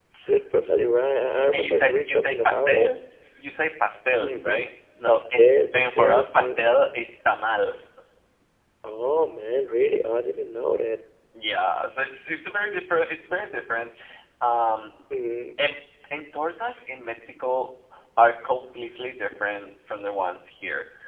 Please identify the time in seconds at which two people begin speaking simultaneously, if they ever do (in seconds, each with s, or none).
1.5 s